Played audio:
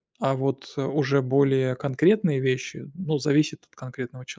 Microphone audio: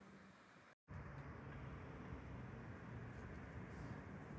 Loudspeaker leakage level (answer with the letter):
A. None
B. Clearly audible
A